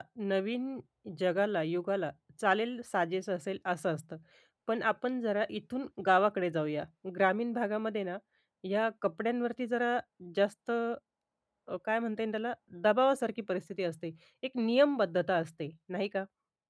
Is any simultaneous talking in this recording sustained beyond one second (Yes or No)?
No